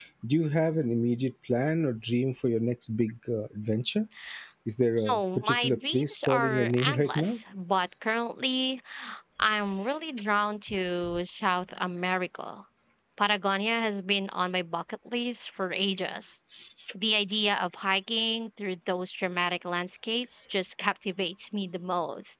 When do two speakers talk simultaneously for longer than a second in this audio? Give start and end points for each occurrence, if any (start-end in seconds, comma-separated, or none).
5.1-7.3